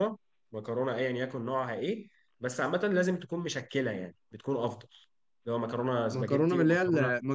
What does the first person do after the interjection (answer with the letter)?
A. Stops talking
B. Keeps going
A